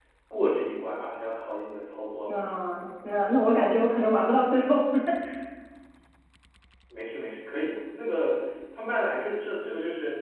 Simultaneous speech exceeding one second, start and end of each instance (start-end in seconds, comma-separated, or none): none